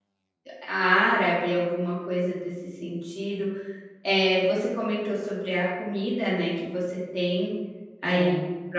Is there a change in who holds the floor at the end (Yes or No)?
No